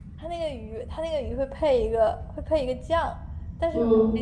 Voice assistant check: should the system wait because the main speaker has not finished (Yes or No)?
Yes